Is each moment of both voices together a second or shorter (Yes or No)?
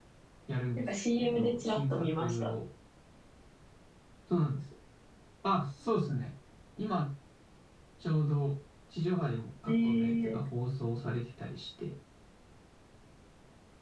No